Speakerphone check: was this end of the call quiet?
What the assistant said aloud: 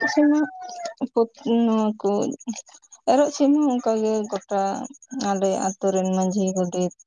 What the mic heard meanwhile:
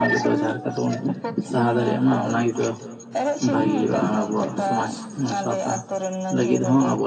No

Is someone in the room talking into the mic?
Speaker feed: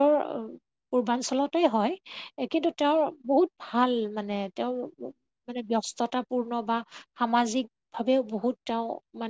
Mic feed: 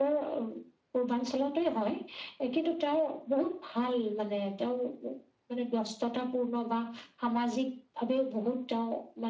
No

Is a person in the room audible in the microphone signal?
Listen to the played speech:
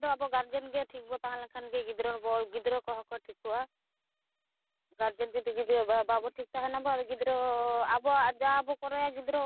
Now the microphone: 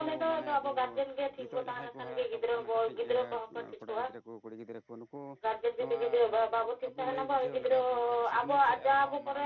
Yes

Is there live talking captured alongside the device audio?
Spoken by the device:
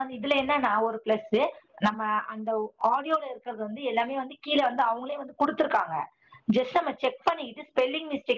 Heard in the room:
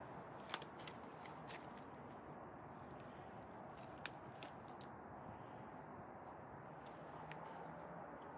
No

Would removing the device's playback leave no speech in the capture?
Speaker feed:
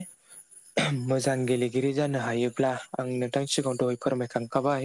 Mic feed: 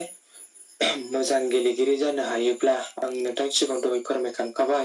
Yes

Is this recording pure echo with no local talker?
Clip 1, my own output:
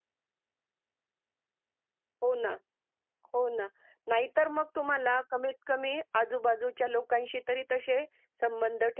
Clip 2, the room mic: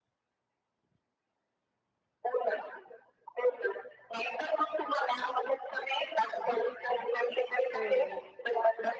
No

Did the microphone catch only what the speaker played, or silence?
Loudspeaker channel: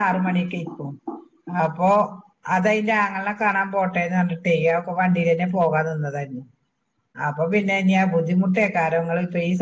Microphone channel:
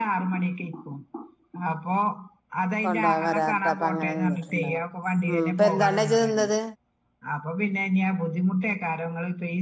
No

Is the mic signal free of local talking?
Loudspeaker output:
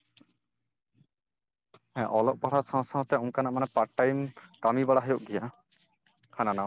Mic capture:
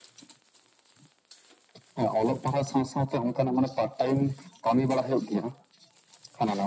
Yes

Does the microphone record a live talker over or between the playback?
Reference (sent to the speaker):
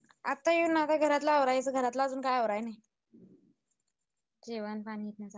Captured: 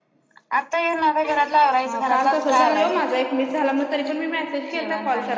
Yes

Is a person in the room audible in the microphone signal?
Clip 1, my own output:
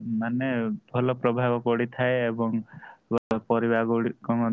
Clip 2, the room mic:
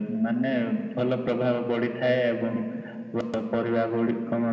No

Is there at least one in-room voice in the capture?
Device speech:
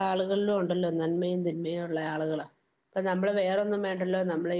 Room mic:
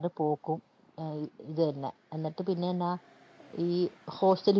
Yes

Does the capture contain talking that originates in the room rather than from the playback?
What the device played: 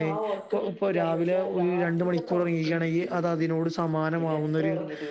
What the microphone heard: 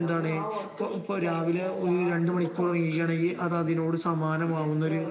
No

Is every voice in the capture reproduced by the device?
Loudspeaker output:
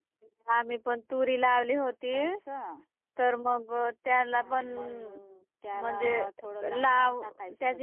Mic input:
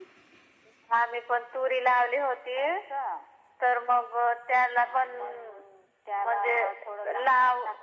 Yes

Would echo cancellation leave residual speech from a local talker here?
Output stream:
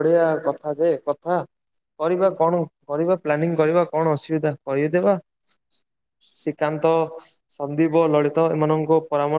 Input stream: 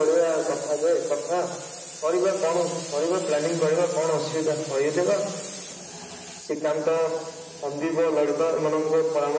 No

